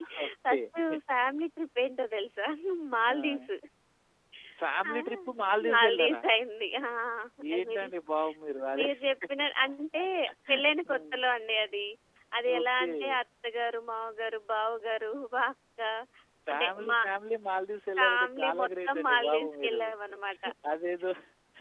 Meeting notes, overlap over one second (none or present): present